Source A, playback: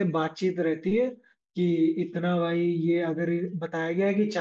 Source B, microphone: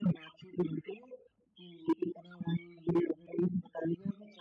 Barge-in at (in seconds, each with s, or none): none